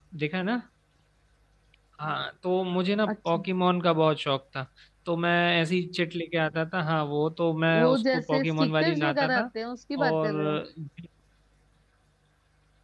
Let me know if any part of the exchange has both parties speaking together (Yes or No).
Yes